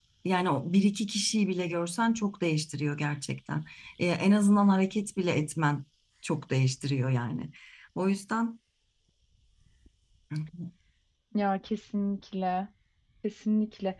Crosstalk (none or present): none